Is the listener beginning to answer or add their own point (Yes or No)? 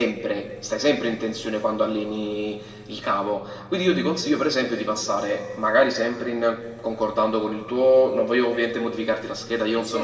No